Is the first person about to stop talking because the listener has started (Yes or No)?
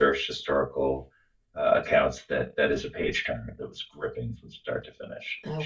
No